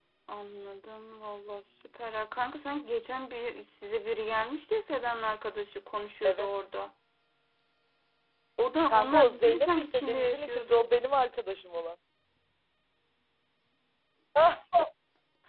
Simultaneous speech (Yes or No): Yes